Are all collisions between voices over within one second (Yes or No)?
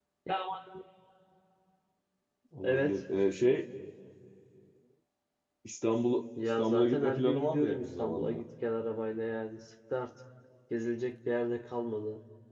No